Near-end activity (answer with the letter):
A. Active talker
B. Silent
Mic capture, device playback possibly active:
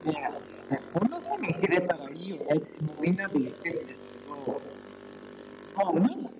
B